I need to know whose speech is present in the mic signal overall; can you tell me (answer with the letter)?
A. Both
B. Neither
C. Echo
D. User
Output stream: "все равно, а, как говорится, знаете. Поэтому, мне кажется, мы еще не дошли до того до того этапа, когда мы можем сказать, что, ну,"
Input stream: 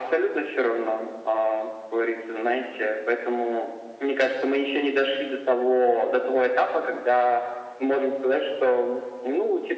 C